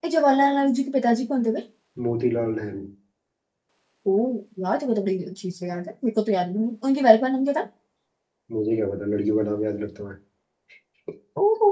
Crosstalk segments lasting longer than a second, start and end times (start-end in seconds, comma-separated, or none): none